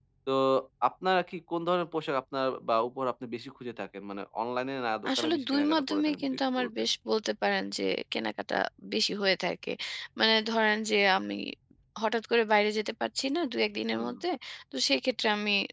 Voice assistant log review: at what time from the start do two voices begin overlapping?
5.2 s

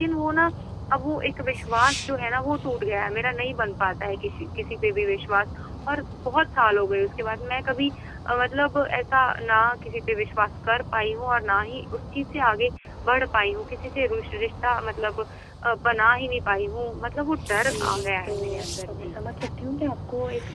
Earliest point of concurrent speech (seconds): 17.5 s

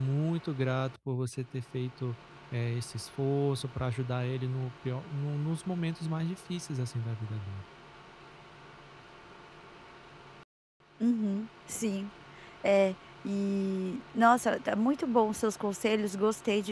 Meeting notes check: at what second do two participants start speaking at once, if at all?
none

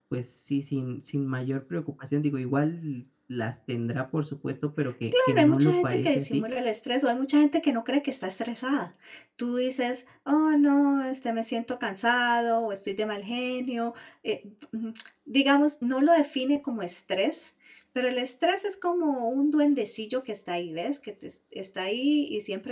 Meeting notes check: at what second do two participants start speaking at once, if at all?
5.1 s

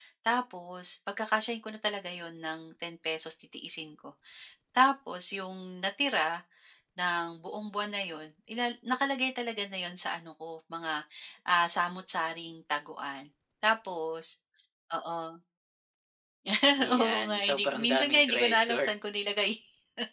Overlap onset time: 17.0 s

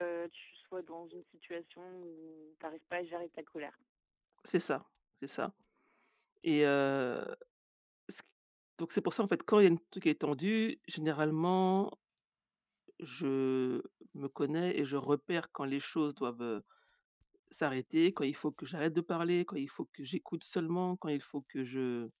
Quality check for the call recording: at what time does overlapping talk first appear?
none

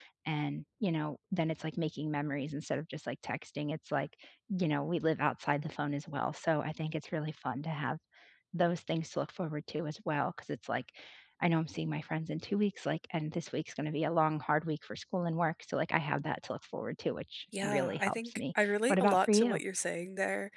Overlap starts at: 17.5 s

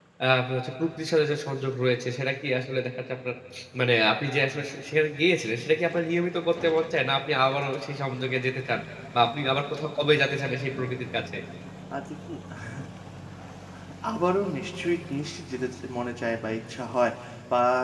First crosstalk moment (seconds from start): none

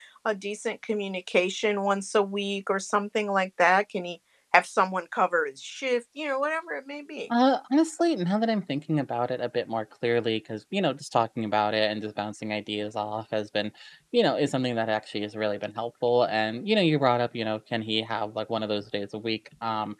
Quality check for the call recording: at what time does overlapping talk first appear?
none

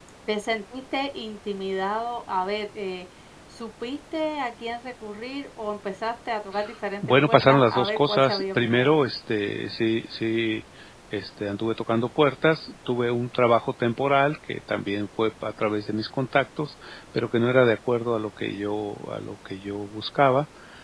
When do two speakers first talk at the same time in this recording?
7.0 s

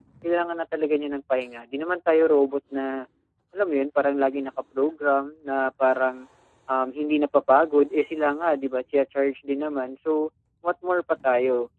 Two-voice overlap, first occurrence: none

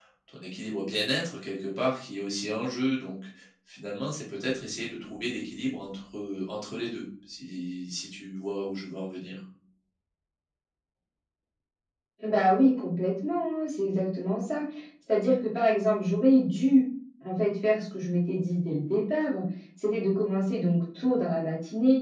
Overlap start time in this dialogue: none

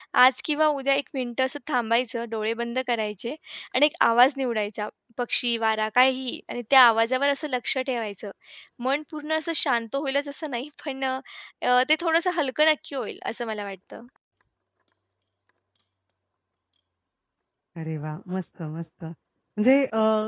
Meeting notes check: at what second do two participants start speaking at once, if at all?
none

